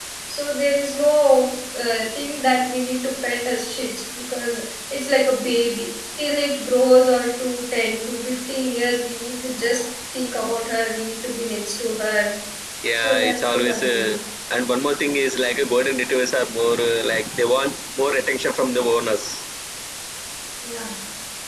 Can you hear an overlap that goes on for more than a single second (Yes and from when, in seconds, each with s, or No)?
Yes, from 12.9 s